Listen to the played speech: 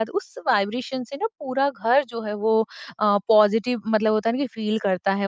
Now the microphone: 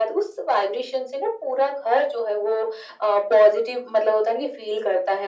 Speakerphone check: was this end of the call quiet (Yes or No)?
Yes